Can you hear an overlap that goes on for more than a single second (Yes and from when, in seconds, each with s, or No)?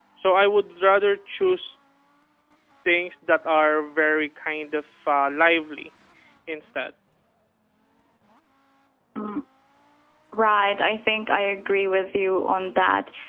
No